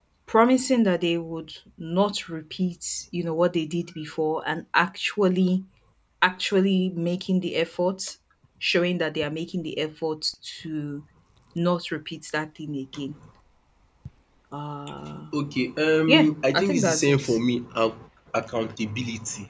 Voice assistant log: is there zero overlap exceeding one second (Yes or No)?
No